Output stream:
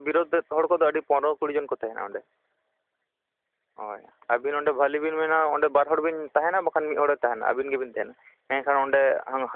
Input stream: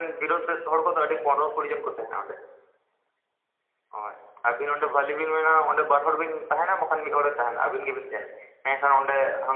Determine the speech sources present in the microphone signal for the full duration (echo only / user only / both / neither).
echo only